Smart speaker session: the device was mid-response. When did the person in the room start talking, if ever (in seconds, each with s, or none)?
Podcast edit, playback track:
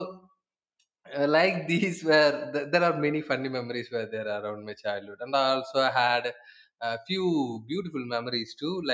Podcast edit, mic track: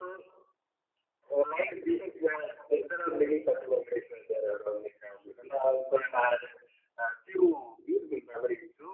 none